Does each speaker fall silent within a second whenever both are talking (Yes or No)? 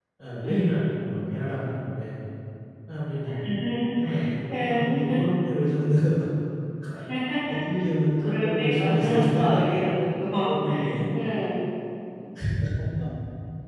No